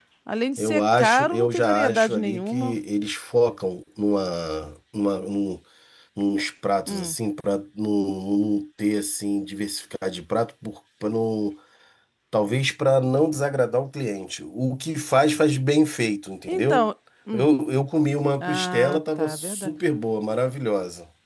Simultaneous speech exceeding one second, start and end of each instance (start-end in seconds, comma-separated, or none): 0.6-2.8, 18.4-19.7